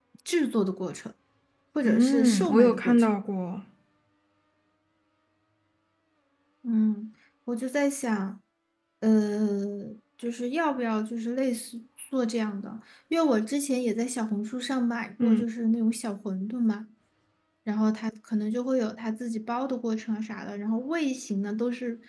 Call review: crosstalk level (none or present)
present